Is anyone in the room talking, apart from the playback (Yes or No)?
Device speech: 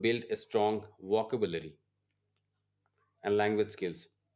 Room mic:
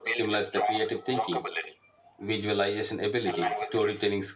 Yes